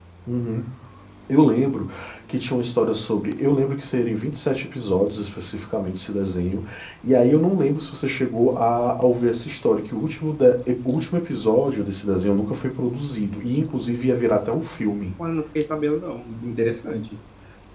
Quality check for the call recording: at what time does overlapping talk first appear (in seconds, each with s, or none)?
none